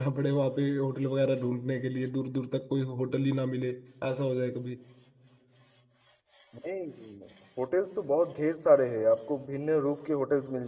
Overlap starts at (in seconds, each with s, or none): none